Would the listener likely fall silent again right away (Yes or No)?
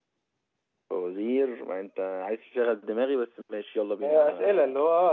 No